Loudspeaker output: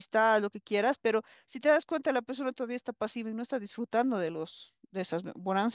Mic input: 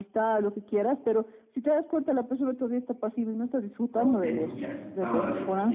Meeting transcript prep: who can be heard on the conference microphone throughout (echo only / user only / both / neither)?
both